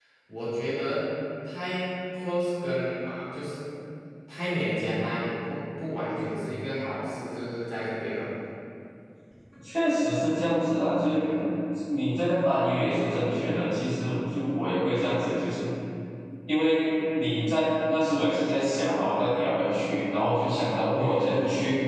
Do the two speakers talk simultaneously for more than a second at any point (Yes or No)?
No